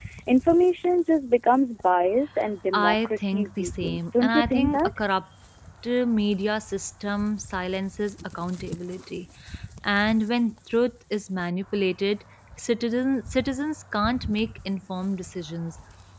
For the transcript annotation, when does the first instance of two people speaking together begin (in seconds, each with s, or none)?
2.7 s